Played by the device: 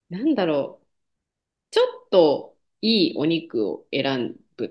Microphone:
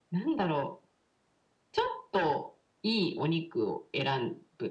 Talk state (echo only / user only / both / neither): echo only